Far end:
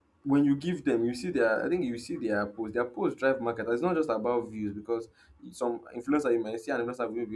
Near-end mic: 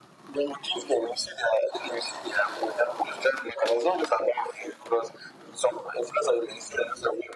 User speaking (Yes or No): No